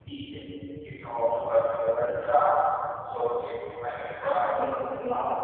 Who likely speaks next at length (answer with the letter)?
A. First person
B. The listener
B